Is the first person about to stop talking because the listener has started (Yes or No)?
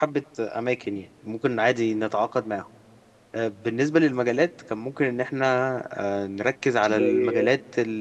No